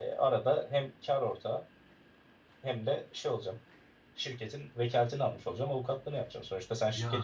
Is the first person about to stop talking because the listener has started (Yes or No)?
No